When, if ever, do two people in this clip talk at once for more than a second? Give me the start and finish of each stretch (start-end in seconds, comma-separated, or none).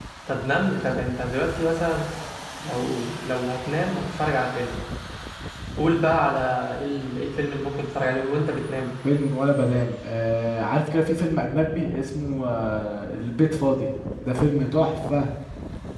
none